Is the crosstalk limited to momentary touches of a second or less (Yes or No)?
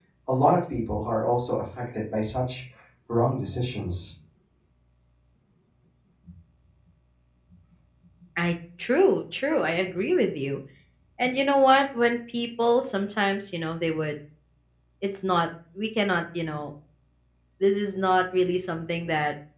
Yes